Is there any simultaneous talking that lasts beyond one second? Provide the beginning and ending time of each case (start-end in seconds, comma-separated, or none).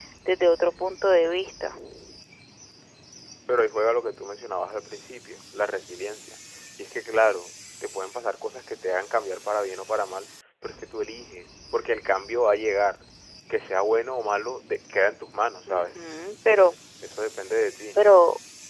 none